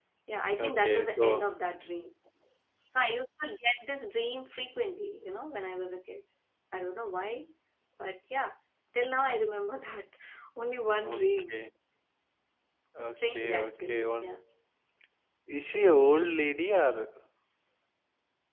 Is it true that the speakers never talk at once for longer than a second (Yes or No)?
No